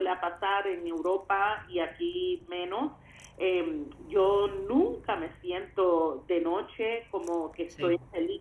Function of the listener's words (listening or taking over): listening